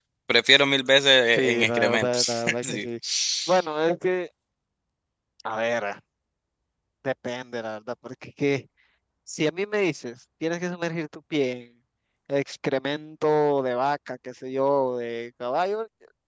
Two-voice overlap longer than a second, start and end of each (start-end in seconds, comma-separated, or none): 1.4-2.9